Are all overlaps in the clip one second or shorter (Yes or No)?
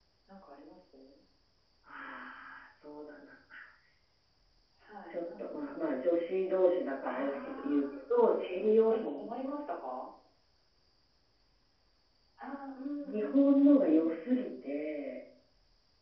No